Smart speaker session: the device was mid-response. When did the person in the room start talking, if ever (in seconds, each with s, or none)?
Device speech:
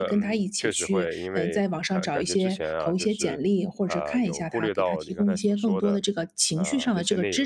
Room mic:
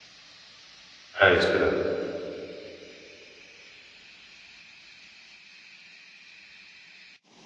1.2 s